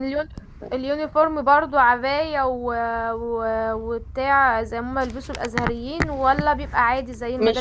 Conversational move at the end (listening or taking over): taking over